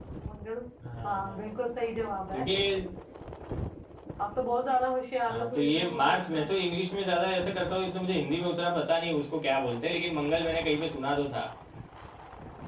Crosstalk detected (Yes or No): Yes